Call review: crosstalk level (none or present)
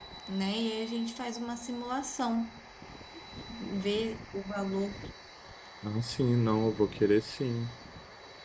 none